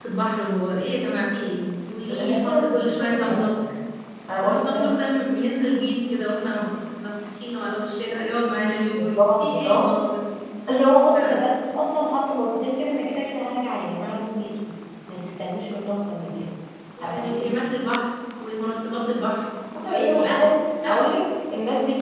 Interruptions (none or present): present